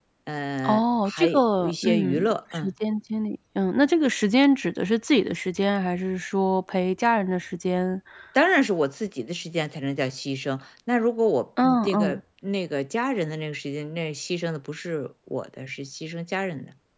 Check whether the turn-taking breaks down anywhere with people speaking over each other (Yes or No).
Yes